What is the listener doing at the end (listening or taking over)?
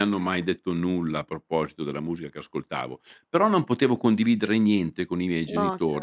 listening